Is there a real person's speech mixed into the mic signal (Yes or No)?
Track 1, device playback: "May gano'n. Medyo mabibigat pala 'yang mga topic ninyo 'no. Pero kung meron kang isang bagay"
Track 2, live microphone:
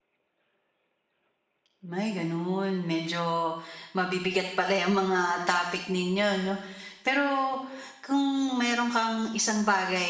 No